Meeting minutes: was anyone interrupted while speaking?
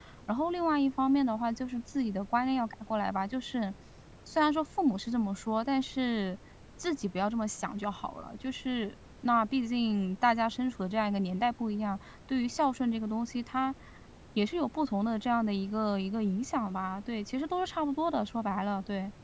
No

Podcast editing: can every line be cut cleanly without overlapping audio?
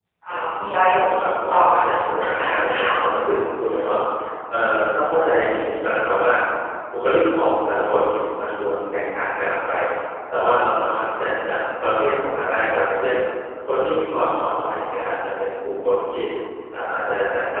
No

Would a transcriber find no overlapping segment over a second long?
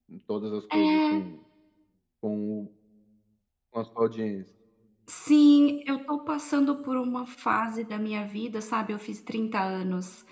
Yes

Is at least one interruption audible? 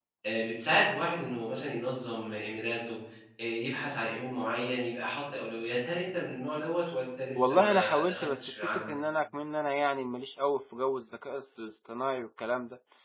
Yes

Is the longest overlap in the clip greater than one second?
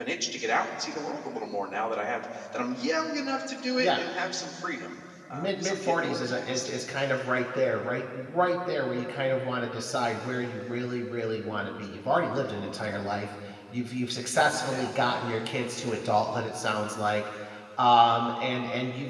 Yes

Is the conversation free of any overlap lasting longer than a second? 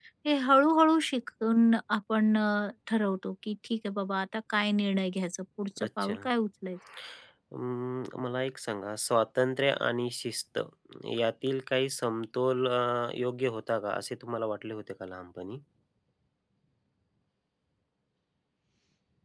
Yes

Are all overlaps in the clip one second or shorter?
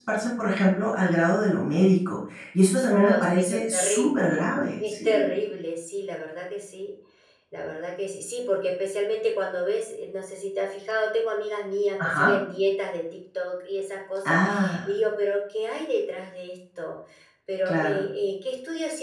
No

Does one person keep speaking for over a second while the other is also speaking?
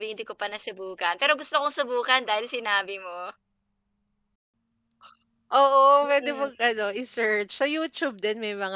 No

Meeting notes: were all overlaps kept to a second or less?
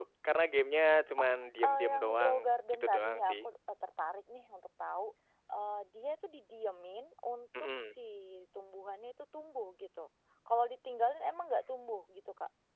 No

